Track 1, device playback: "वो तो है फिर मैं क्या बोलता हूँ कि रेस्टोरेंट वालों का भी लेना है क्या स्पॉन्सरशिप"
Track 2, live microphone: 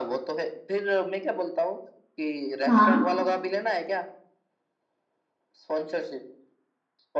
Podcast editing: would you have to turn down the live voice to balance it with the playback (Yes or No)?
Yes